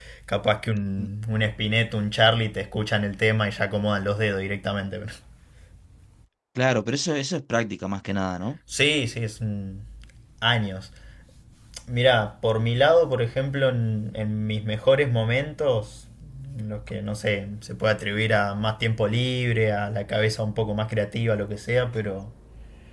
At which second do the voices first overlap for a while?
none

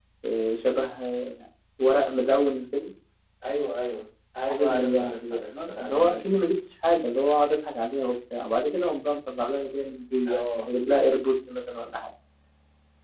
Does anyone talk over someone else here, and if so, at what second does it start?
4.5 s

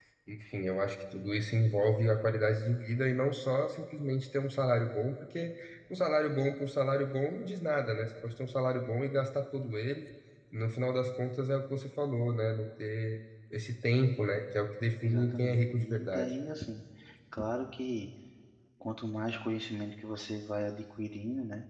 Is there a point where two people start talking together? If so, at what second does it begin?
15.0 s

